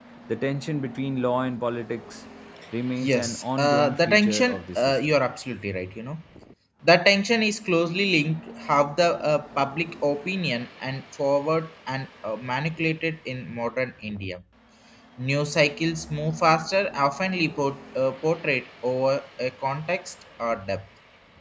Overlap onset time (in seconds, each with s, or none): 3.0 s